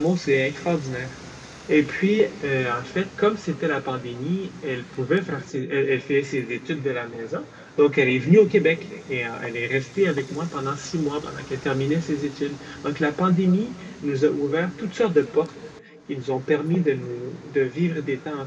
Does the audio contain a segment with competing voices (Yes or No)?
No